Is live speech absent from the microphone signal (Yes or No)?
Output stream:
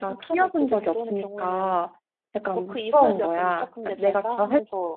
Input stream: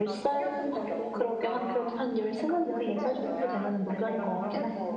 No